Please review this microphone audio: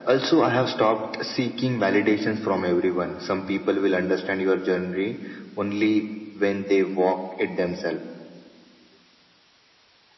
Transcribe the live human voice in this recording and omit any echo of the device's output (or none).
none